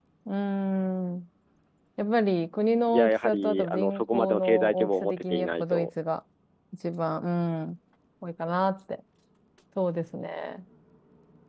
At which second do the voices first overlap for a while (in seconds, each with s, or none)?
2.9 s